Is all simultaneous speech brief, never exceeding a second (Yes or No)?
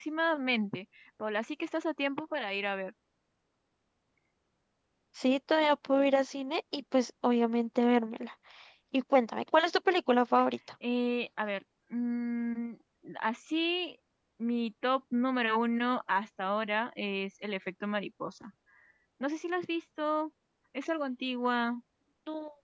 Yes